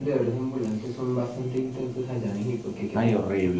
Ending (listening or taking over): taking over